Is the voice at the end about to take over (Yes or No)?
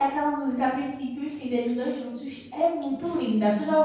Yes